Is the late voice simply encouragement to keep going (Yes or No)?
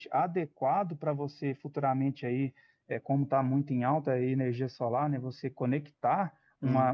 Yes